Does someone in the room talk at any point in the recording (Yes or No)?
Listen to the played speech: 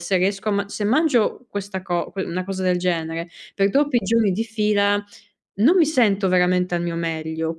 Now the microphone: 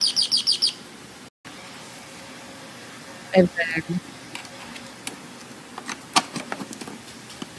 Yes